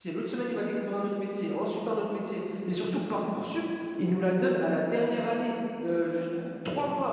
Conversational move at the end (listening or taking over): listening